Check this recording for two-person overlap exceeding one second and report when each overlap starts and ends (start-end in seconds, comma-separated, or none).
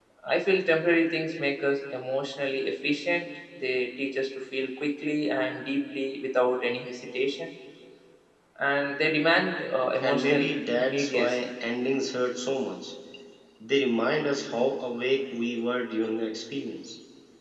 10.0-11.5